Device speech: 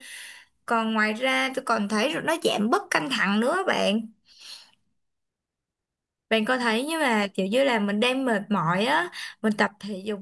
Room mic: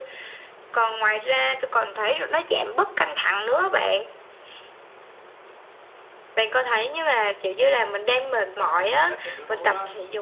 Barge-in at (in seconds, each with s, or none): 8.4 s